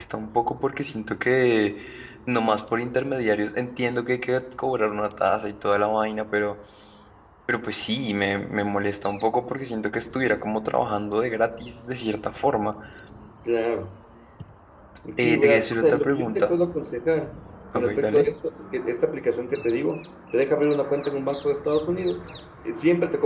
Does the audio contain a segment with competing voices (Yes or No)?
Yes